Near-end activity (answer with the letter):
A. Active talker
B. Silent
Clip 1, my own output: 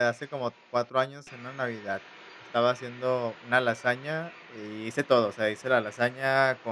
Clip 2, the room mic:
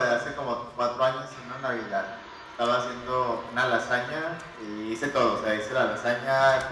B